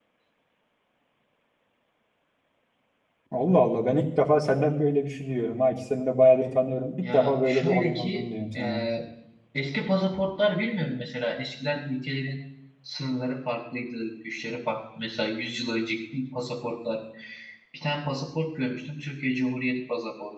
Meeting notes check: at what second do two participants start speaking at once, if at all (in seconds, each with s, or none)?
7.0 s